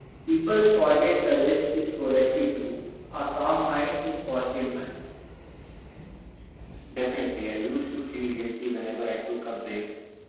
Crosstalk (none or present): none